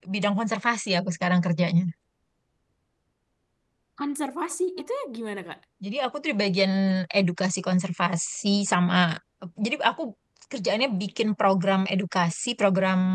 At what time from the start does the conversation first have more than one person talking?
none

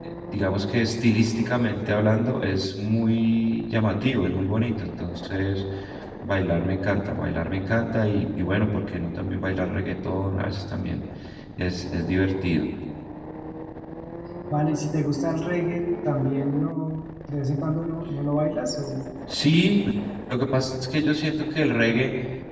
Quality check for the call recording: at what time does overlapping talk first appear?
none

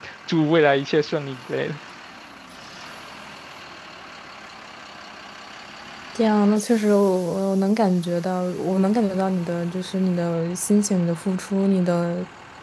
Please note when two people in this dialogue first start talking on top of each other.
none

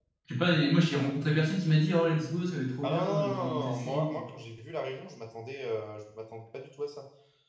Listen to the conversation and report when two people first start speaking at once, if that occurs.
3 s

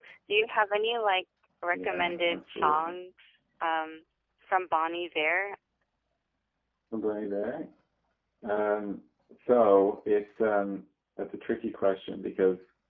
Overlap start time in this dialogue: 2 s

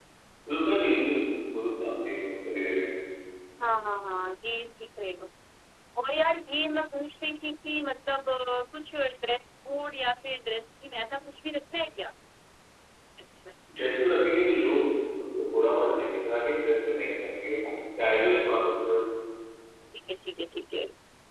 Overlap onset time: none

